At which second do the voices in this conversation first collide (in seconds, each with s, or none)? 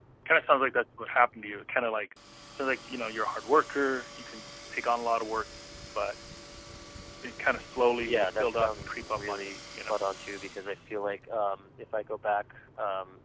8.0 s